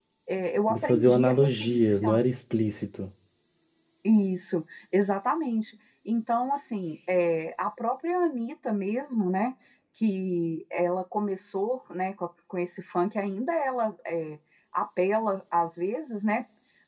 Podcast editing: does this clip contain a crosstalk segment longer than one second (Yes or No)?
Yes